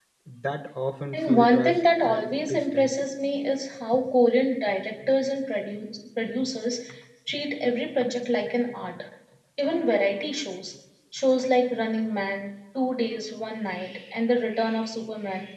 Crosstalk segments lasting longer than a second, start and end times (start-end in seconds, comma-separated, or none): 1.1-2.9